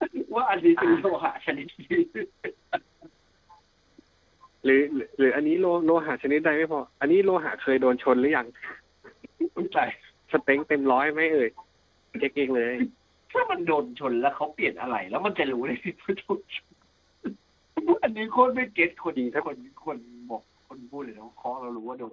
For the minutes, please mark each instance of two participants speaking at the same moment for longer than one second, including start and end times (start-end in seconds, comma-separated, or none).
none